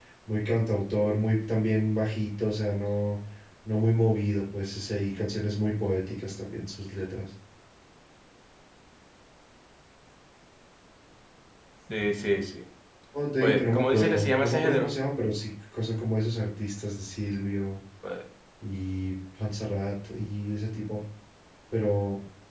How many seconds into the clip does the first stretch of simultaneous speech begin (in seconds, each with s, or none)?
13.4 s